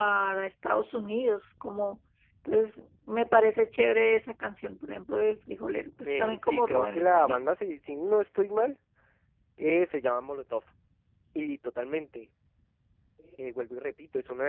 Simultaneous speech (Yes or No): Yes